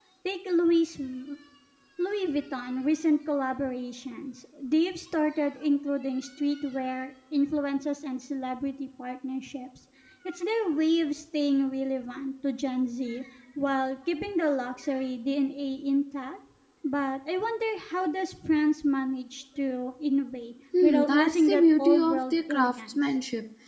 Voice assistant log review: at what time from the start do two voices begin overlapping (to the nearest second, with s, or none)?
21 s